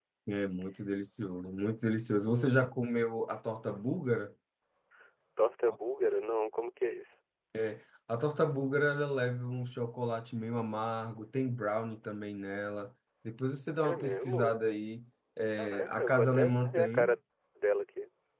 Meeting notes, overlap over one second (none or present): present